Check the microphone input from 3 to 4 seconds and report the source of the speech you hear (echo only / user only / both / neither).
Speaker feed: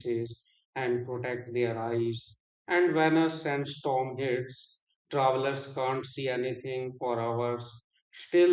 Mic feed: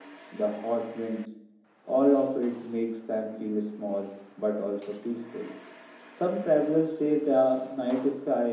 user only